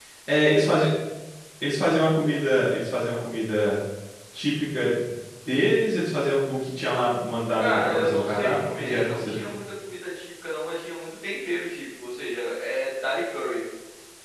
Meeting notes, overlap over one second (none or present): present